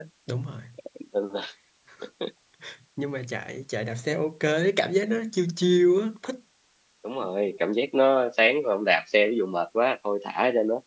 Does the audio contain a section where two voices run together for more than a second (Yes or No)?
No